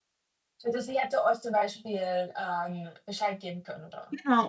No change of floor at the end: No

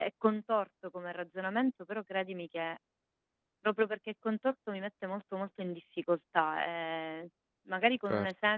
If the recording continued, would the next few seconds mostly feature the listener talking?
No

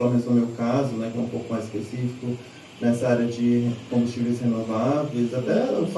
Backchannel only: Yes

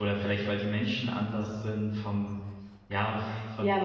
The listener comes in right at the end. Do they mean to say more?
Yes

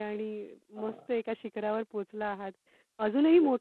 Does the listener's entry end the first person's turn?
No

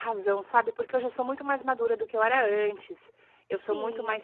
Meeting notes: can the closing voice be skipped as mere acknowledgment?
No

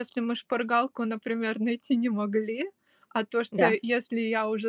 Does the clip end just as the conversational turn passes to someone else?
No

